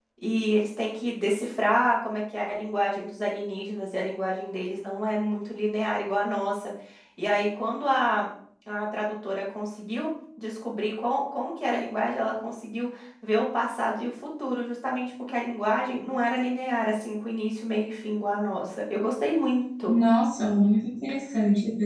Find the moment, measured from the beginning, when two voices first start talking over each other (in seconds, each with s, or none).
none